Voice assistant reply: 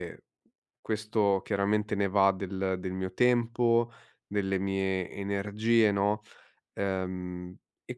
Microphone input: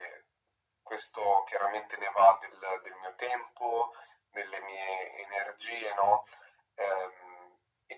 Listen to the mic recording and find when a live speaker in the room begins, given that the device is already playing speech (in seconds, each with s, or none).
none